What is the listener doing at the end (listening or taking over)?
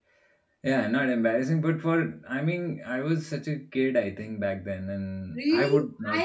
taking over